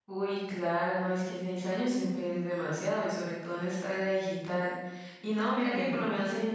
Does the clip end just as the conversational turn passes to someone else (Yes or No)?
No